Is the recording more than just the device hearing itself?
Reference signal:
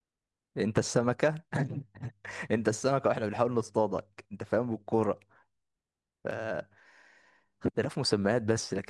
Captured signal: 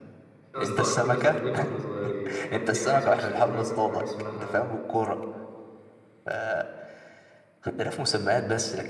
Yes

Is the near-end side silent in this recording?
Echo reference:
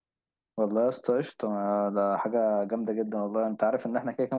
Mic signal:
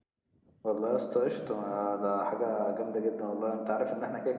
Yes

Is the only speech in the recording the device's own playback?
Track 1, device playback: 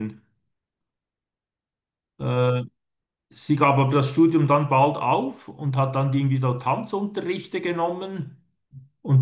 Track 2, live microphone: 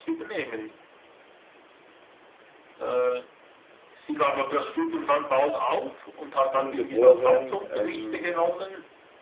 No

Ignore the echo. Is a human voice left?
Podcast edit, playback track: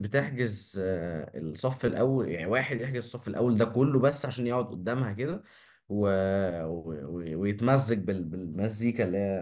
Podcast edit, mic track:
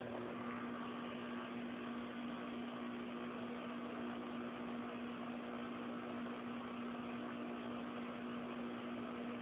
No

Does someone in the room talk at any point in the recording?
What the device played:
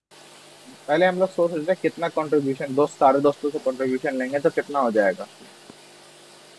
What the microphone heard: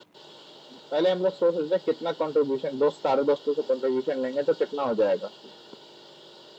No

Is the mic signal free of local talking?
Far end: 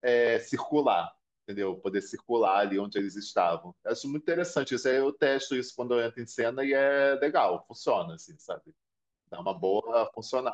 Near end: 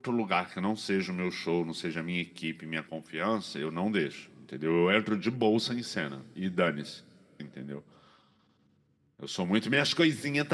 No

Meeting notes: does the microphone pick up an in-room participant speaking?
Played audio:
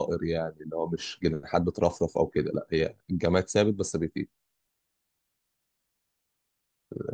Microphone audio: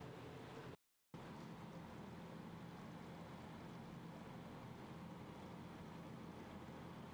No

